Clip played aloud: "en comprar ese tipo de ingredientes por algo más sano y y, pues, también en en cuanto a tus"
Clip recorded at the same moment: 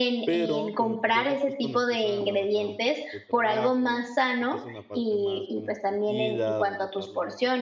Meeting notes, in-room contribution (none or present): present